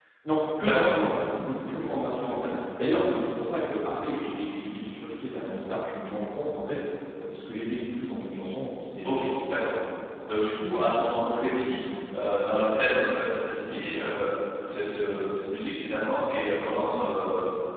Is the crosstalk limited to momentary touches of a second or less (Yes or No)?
Yes